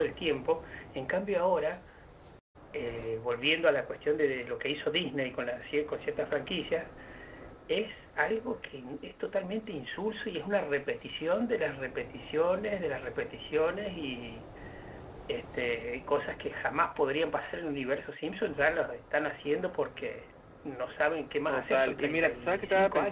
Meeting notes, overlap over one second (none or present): present